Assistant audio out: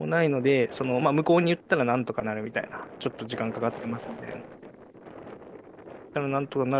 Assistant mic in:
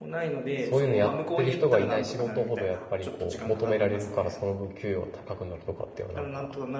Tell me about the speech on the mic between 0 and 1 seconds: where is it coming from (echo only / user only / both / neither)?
both